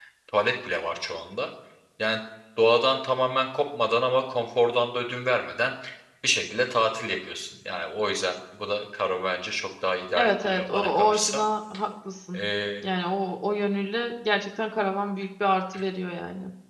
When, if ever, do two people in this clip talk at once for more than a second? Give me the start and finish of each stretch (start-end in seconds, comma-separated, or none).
10.2-11.4